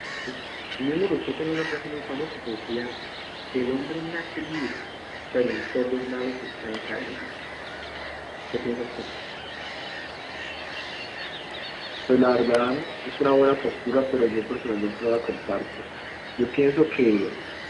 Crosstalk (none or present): none